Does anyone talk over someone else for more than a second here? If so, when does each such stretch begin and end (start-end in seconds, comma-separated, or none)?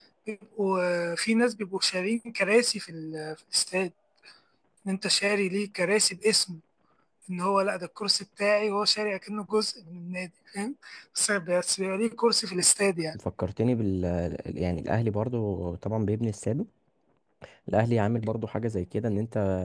none